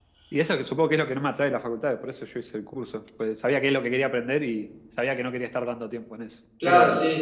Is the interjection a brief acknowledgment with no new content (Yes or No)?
No